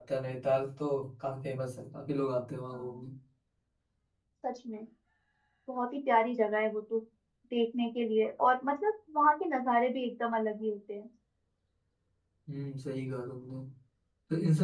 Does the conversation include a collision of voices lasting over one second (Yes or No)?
No